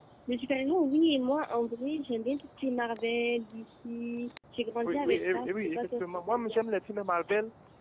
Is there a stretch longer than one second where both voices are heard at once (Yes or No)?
Yes